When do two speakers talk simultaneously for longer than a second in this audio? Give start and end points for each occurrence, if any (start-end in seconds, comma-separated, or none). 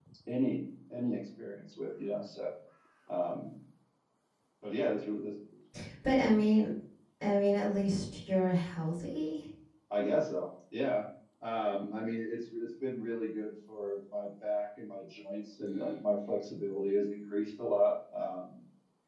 none